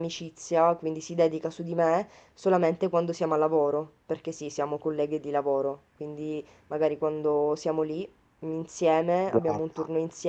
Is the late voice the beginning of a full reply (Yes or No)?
No